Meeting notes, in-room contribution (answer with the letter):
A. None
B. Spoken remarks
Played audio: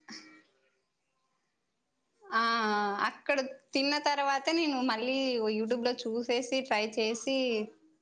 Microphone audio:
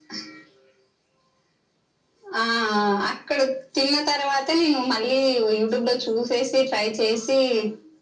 A